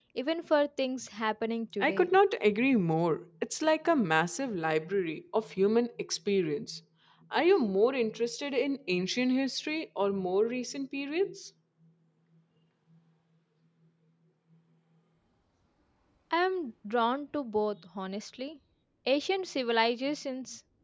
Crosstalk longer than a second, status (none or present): none